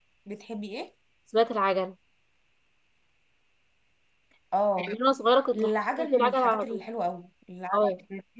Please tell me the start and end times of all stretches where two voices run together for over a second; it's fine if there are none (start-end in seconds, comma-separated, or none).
5.5-6.8